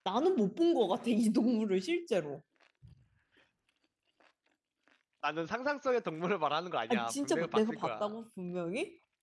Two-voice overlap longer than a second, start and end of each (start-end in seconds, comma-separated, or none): 6.9-8.1